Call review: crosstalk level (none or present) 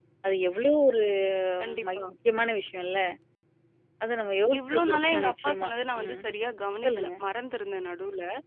present